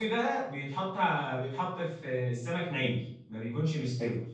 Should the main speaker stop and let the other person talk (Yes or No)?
No